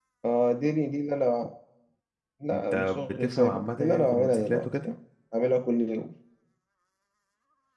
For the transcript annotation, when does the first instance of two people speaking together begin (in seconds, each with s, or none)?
2.5 s